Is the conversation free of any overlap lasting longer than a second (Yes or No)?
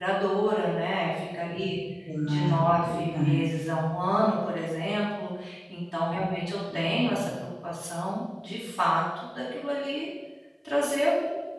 No